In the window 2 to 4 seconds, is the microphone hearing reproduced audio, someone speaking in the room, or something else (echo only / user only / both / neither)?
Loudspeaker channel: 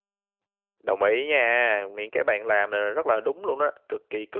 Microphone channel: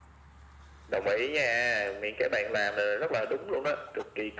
echo only